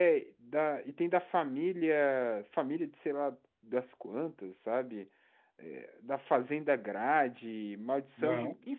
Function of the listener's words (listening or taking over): listening